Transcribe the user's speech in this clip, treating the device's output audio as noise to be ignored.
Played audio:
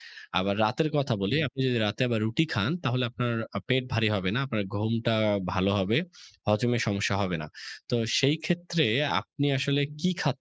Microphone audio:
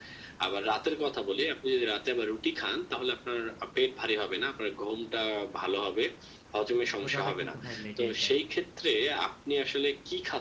কিন্তু ক্ষুধাটা কিন্তু ভাই লেগেই যায়।

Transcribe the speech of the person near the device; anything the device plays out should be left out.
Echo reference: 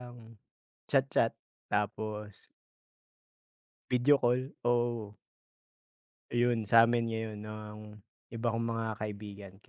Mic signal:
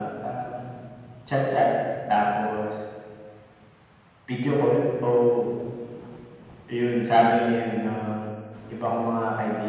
none

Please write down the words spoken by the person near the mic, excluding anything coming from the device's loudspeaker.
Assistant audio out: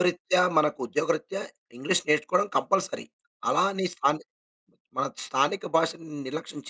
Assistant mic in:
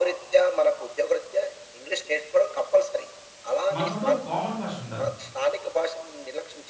మనకంటూ ఒక కామన్ భాషుండాలి.

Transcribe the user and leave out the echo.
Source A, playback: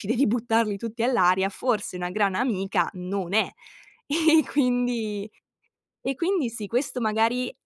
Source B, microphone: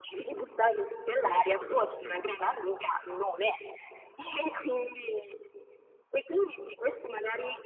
E poi è uscita dal vostro gruppo.

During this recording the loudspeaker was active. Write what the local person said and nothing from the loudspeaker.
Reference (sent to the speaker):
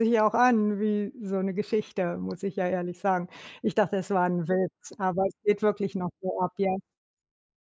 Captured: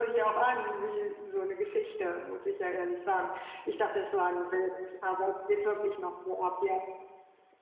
none

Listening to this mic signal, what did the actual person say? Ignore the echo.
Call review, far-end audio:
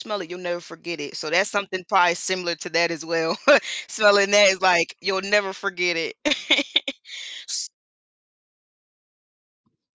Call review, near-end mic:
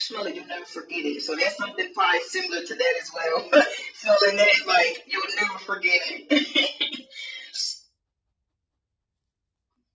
none

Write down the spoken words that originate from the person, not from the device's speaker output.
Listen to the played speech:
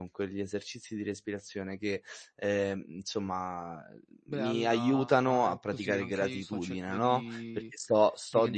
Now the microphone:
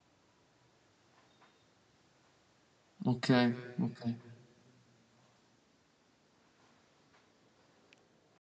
Okay, okay.

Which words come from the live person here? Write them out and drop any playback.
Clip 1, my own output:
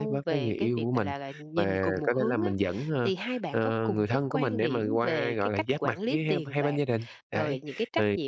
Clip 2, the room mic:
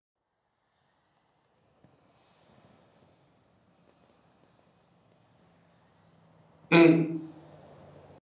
Ừm.

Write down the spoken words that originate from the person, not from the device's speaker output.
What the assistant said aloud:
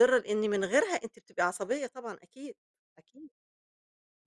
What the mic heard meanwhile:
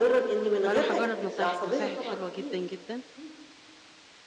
فأنا هاجرّب نصايحِك، نصايحِك حلوة جدًا، جدًا.

